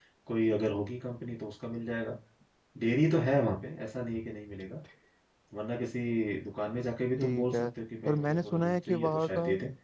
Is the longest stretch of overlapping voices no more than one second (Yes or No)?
No